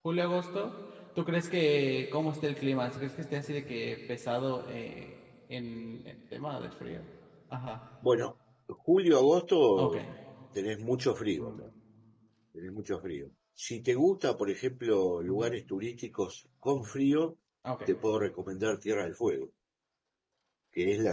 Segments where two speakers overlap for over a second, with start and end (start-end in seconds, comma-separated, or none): none